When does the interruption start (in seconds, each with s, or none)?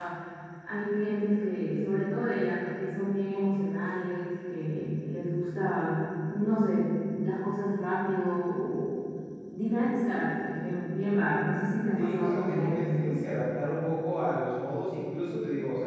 12.0 s